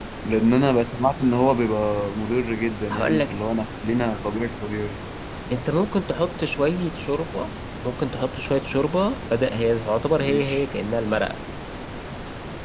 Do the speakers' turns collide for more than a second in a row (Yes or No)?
No